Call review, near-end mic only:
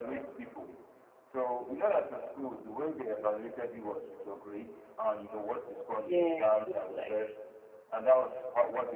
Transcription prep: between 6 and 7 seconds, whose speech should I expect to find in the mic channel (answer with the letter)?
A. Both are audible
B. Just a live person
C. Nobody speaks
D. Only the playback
A